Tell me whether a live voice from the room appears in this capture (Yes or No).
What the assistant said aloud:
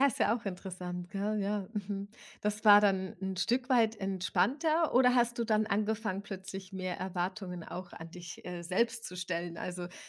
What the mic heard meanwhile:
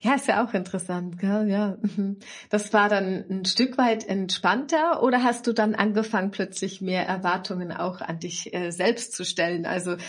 No